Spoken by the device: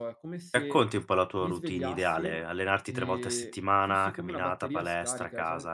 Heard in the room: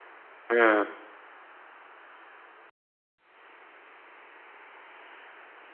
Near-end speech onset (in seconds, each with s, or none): 0.5 s